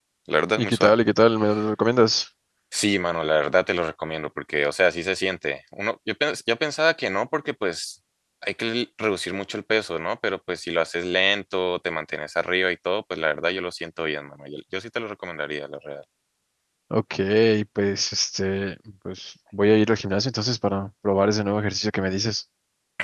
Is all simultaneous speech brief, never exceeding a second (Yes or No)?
Yes